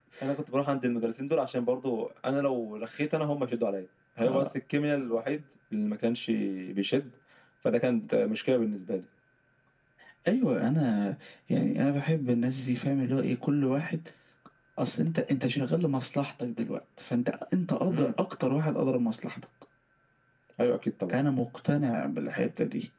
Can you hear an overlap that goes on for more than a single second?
No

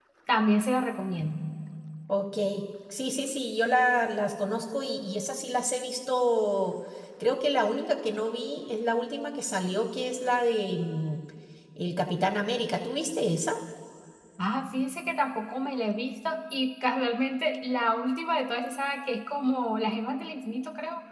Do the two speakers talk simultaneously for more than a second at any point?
No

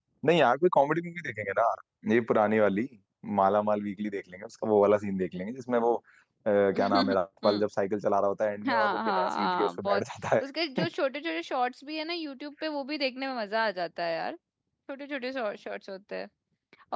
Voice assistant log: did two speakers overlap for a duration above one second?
Yes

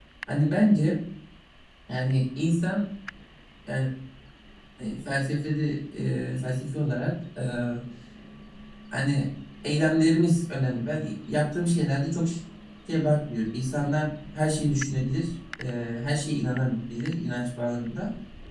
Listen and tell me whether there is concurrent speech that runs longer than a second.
No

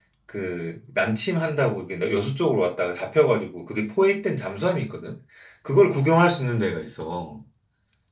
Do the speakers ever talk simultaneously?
No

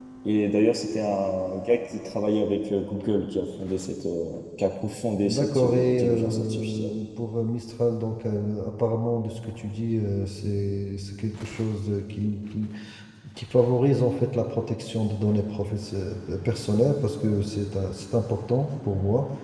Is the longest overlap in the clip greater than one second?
Yes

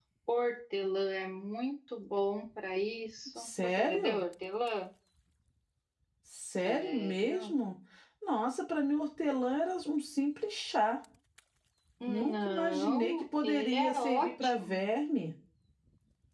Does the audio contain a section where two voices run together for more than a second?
Yes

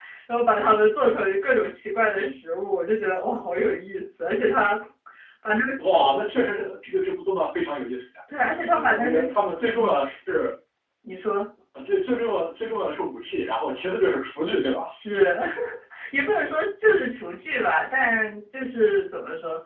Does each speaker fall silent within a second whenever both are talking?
Yes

